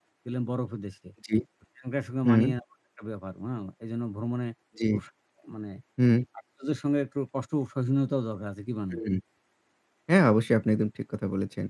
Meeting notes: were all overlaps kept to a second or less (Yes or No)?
Yes